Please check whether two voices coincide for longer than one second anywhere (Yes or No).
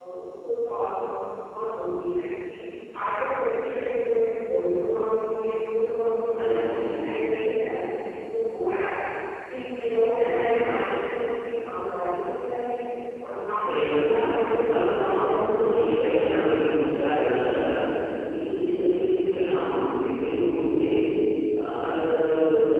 Yes